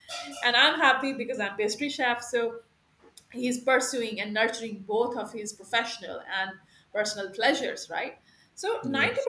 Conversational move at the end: listening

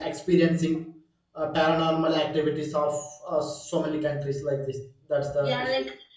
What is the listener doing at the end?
taking over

